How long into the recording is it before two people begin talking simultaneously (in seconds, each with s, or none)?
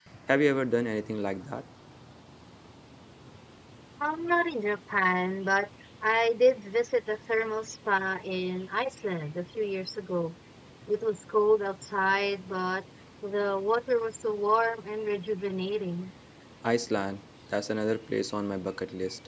none